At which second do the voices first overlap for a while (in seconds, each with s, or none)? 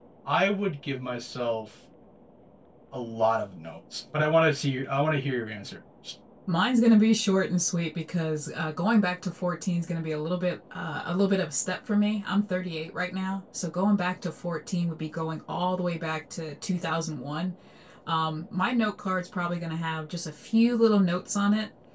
none